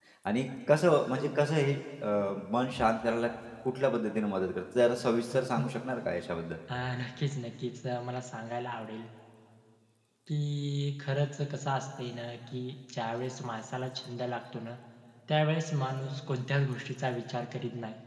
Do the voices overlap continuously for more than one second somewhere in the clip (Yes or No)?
No